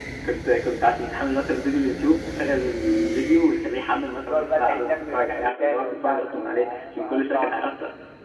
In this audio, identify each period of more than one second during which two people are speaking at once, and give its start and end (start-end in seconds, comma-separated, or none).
4.2-7.5